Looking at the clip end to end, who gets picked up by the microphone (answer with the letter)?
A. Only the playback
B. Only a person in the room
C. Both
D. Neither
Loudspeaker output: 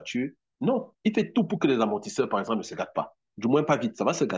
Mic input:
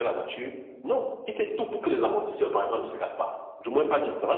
A